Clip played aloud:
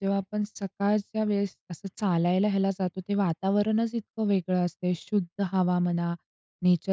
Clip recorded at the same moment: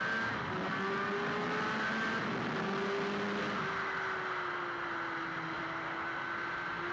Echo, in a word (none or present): none